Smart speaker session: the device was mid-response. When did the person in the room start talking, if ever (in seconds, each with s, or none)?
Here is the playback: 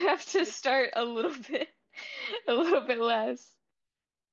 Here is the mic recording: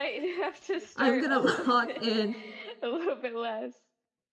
1.0 s